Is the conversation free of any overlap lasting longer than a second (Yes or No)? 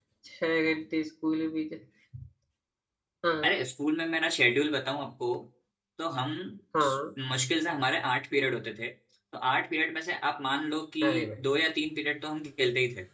Yes